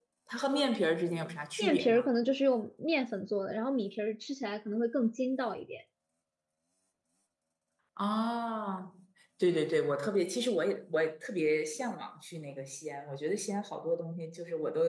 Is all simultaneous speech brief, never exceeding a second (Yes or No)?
Yes